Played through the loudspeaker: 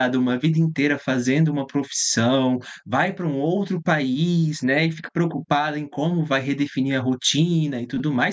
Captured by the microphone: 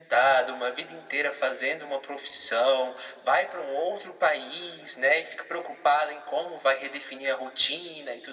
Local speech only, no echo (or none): none